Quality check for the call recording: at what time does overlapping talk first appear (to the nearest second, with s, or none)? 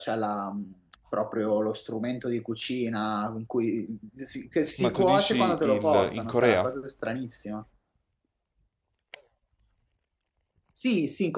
5 s